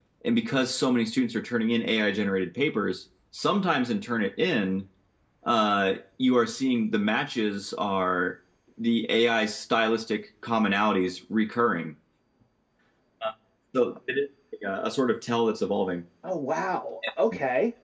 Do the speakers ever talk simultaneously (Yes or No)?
No